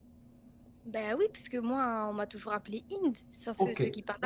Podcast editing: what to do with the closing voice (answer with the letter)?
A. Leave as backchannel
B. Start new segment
B